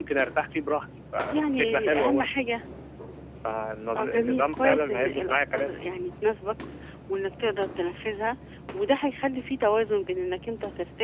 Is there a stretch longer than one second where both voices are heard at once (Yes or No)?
Yes